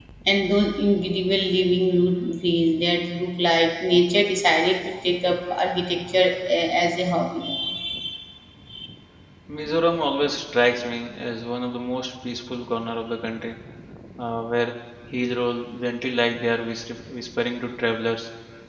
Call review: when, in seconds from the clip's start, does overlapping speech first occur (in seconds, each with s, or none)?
none